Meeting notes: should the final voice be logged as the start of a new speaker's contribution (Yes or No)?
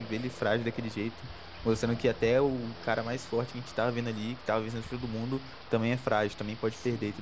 Yes